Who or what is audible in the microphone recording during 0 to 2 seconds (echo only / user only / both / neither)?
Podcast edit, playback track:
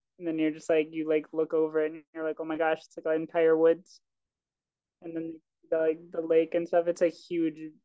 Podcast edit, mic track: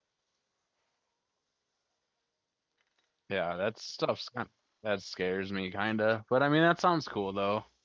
neither